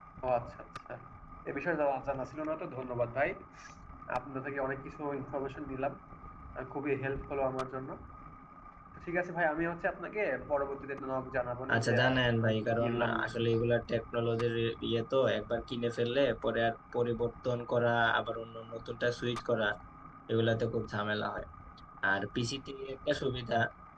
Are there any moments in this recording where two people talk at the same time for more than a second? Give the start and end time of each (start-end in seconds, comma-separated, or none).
11.7-13.6